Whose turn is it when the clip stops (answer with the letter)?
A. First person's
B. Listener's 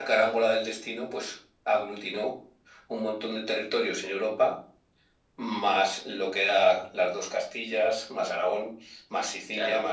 B